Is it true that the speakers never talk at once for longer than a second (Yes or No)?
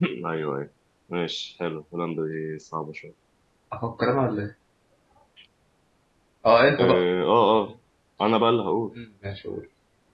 Yes